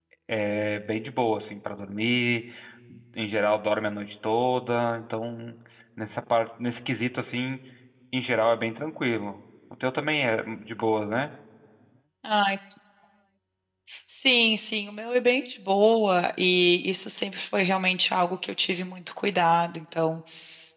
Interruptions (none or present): none